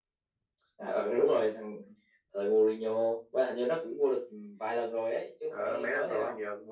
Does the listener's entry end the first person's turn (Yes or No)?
Yes